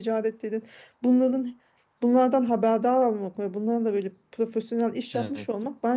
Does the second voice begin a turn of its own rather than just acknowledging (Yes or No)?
No